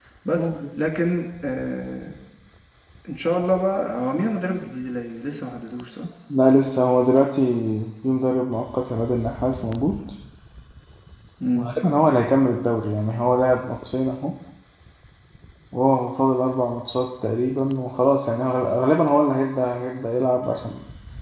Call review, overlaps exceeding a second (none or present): none